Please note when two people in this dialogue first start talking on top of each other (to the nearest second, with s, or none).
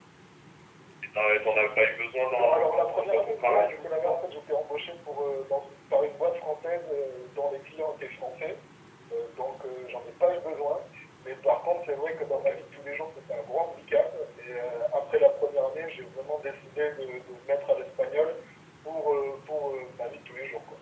2 s